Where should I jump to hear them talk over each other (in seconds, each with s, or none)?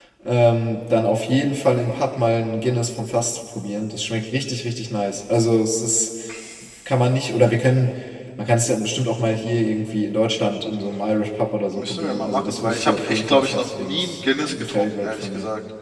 11.8 s